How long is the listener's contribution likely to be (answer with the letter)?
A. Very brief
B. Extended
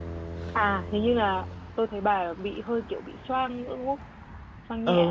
B